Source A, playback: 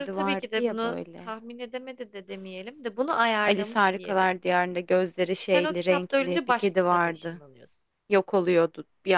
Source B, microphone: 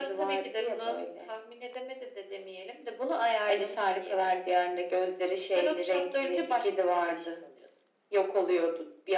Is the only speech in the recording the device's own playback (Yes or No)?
Yes